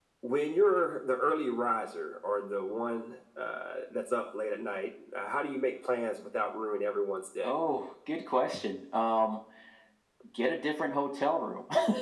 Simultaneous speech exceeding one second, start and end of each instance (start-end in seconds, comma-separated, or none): none